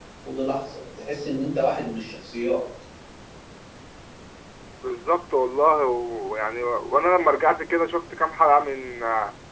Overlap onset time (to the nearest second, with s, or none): none